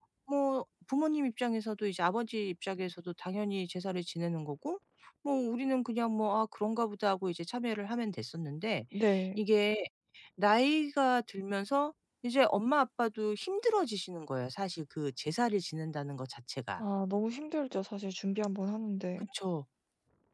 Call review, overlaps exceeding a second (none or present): none